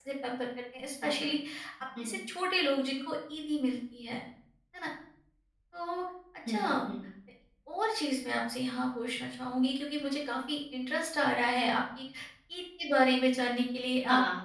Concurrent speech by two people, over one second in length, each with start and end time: none

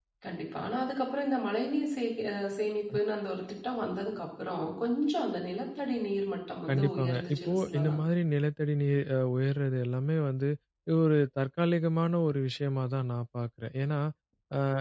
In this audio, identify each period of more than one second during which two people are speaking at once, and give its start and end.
6.7-8.0

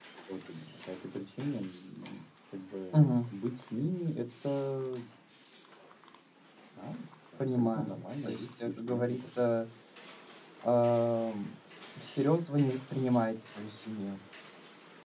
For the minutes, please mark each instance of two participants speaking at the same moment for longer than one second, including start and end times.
7.5-9.5

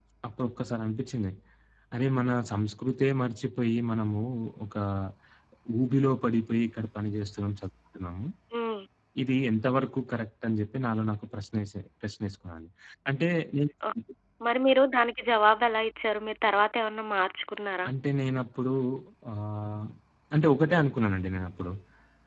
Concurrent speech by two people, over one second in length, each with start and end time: none

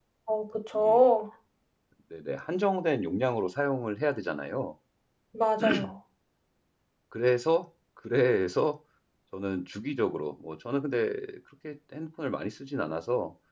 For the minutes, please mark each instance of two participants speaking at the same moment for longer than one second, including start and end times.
none

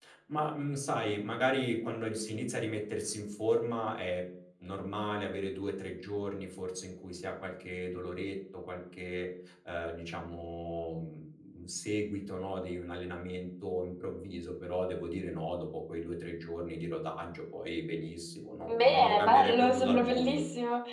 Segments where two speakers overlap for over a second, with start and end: 18.7-20.4

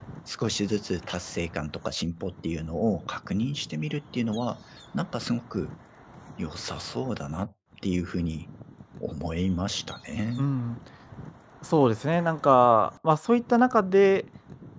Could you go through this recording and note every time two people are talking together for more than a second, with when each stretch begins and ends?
none

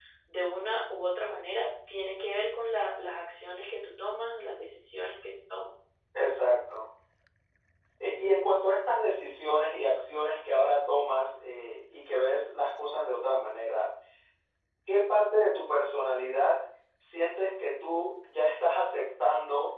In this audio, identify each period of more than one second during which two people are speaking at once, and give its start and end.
none

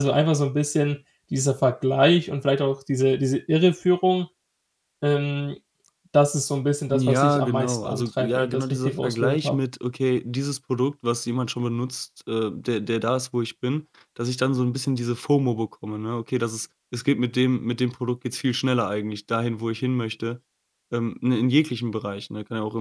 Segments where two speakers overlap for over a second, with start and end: 6.9-9.4

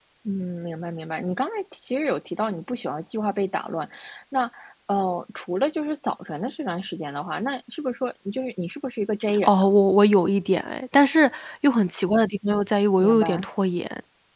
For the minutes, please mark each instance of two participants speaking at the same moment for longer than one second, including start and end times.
none

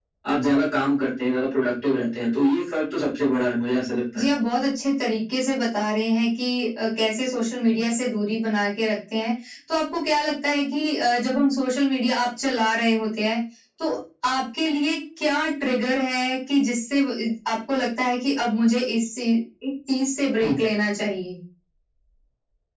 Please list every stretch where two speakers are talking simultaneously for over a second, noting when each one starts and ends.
none

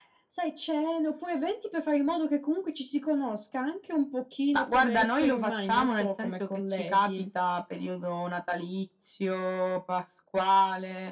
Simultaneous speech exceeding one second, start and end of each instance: 4.5-7.1

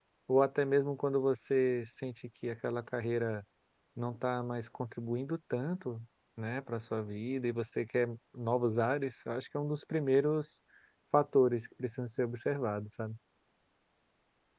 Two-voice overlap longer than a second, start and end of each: none

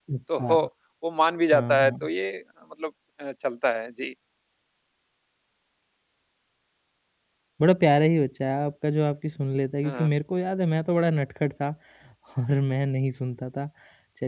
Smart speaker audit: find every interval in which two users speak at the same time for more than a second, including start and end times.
none

